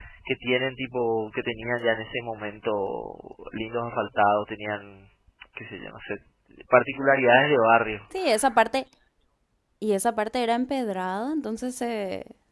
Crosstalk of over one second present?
No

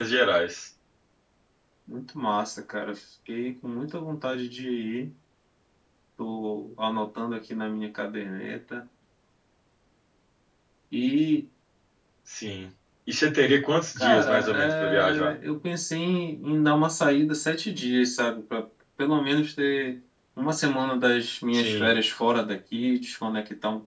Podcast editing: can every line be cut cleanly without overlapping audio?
No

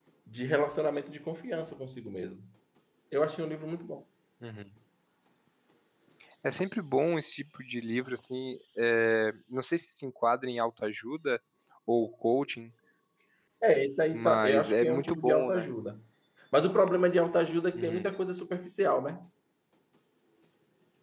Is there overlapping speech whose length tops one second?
Yes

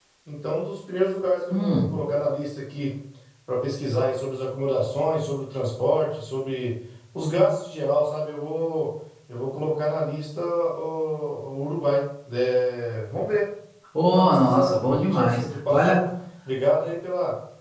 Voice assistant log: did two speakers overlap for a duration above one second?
Yes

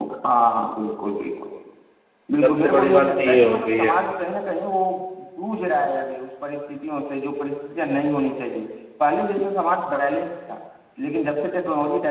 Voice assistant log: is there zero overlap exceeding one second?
No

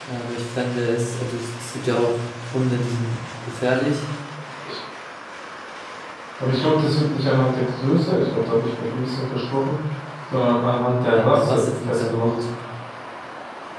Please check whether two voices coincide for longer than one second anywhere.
Yes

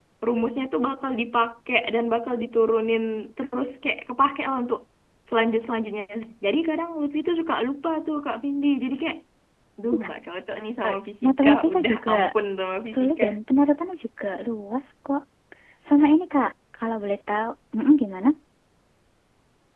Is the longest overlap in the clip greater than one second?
Yes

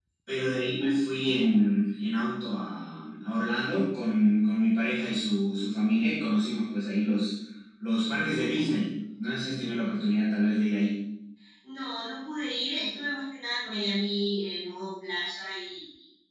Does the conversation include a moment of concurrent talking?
No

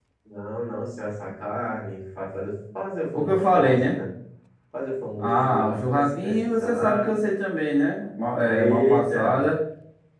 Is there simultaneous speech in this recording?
Yes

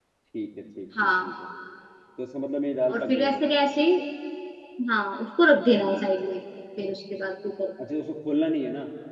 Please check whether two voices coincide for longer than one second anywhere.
No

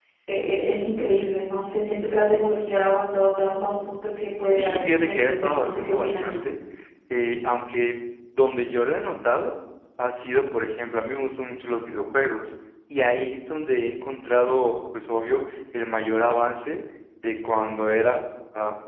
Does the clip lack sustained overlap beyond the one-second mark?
No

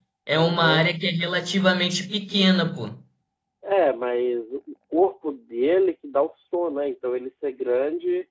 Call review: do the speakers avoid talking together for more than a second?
Yes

